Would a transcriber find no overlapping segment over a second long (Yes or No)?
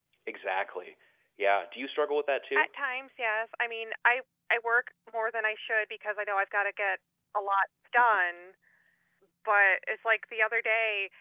Yes